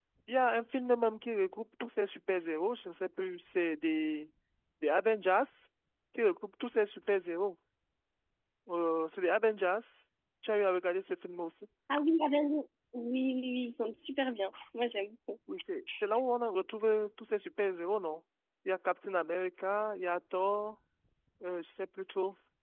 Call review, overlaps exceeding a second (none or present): none